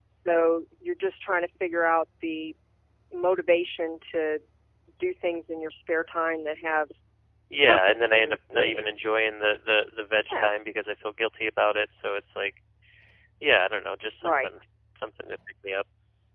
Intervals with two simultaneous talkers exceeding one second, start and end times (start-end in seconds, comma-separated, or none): 7.6-8.9